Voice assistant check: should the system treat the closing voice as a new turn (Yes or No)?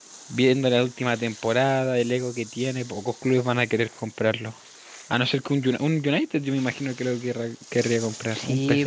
Yes